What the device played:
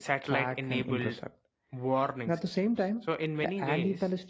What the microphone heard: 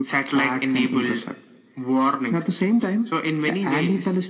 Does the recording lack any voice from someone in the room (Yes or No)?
Yes